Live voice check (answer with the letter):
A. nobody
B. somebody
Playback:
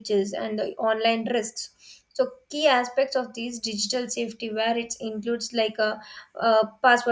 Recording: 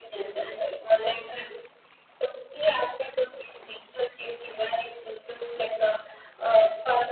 A